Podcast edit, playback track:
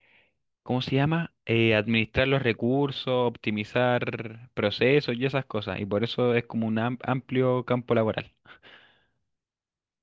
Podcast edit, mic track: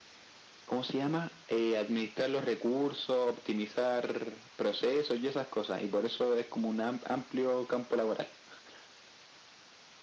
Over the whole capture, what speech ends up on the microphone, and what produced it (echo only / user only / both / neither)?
echo only